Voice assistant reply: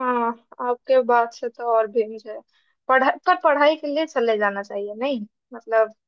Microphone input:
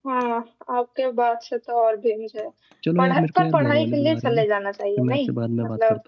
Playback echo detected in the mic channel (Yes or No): Yes